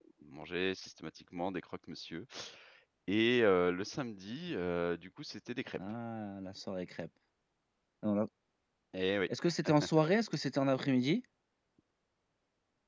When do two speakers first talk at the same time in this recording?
none

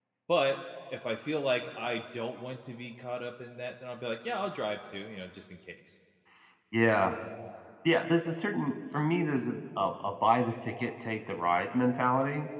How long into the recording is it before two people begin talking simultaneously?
none

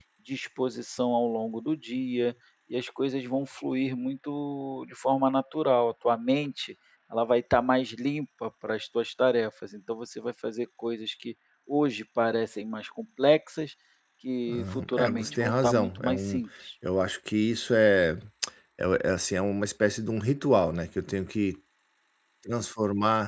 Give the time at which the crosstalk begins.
14.5 s

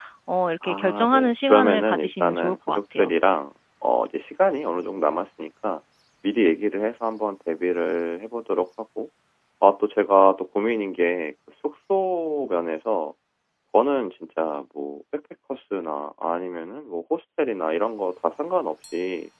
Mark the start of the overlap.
0.6 s

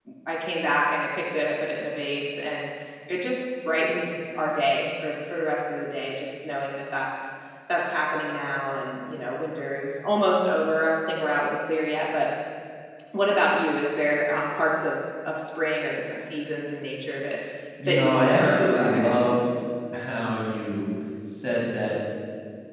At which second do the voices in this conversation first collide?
17.9 s

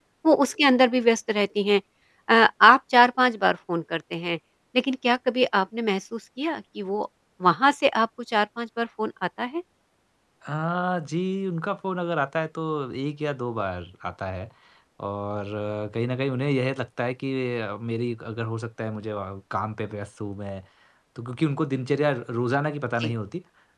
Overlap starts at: none

